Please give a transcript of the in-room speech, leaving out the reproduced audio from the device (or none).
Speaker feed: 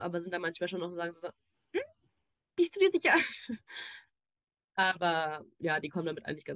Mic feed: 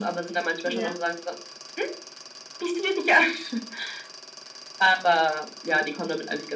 ja,